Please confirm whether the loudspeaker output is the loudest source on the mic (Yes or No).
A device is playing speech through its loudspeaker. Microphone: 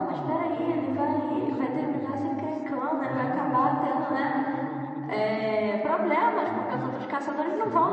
Yes